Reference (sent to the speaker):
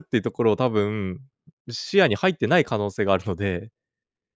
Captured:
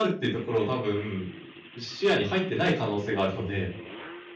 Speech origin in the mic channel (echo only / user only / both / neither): echo only